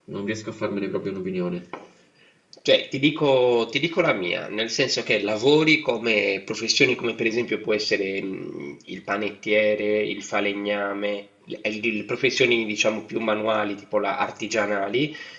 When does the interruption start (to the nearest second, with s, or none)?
none